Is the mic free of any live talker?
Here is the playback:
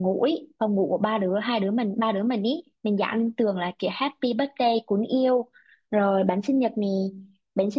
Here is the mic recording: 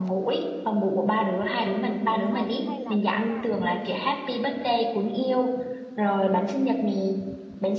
No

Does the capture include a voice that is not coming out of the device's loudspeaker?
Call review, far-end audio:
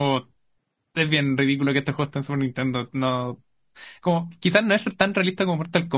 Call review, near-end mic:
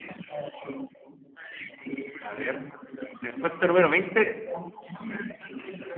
Yes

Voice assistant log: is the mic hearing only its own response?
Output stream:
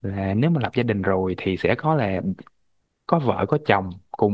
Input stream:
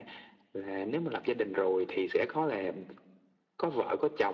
Yes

